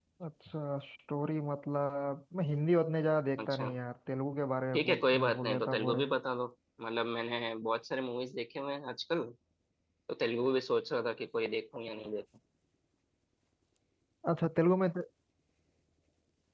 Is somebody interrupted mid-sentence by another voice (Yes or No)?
Yes